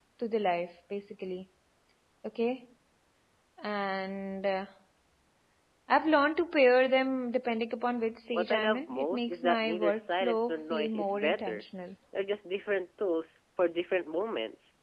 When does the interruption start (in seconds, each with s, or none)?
8.3 s